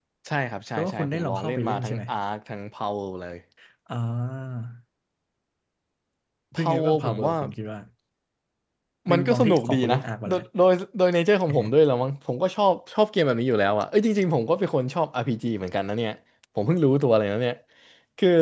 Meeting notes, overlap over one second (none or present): present